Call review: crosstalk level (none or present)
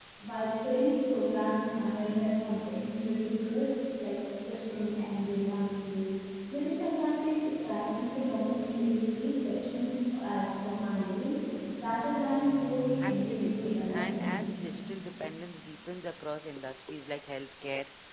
present